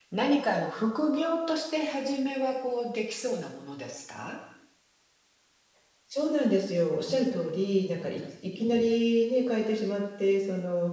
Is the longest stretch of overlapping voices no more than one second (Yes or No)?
Yes